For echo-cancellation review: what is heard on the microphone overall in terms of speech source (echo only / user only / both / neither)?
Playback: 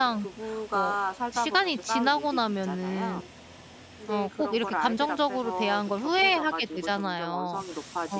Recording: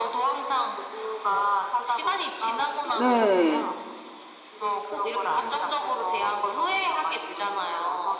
both